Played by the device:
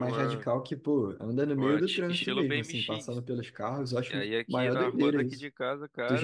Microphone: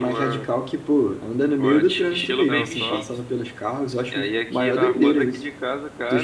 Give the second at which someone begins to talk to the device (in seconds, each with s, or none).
2.5 s